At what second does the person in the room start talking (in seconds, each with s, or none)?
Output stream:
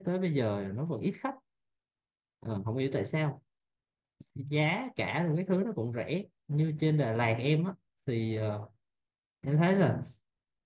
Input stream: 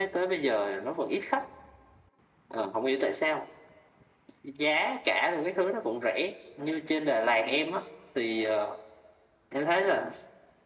none